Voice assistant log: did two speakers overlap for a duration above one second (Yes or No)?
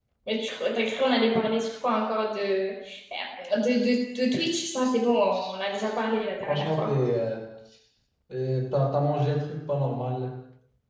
No